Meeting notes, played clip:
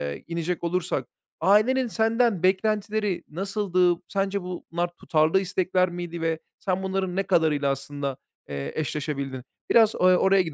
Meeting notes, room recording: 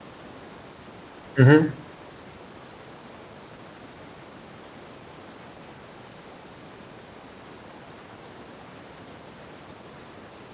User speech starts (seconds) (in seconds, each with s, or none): 1.3 s